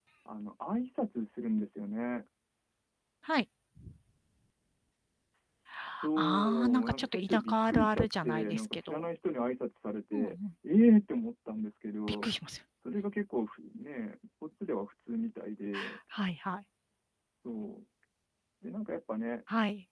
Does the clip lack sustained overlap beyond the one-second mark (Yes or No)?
No